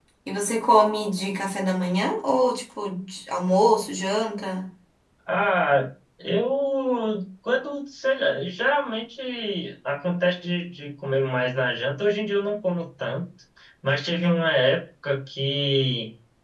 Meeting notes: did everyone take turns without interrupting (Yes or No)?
Yes